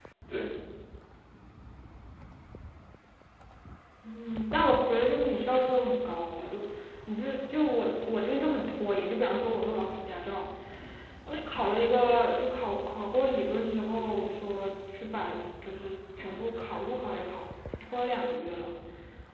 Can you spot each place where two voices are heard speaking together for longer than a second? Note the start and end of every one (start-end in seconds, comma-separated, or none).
none